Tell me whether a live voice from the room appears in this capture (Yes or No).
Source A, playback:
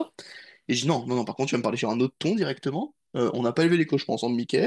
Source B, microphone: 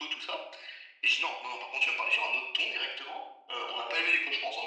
No